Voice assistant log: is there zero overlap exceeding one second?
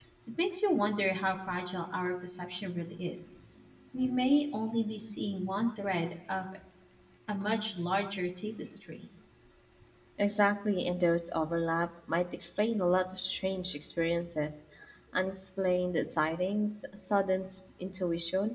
Yes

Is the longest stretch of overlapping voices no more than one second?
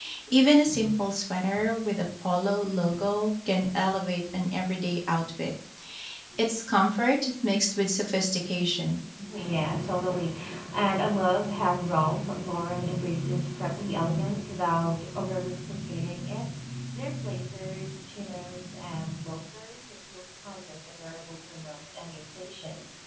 Yes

